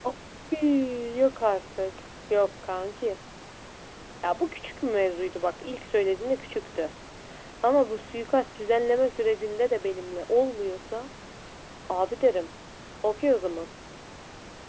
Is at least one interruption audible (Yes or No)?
No